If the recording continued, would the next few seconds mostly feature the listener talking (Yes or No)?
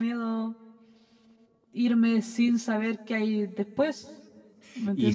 Yes